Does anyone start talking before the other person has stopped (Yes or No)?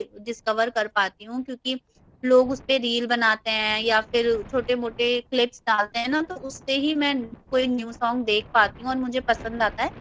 No